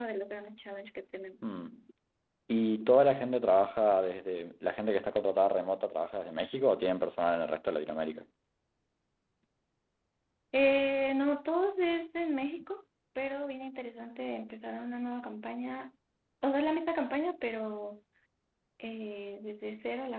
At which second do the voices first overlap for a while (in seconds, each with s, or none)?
none